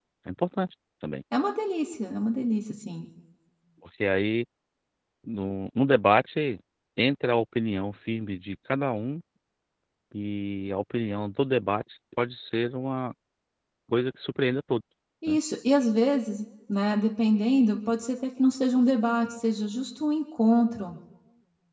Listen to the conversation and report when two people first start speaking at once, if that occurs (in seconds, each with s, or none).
none